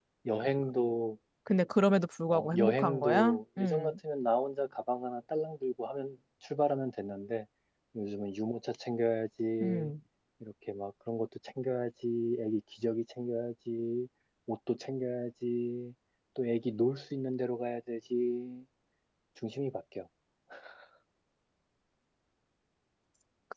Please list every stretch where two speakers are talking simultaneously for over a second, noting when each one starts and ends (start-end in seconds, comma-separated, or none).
2.3-3.9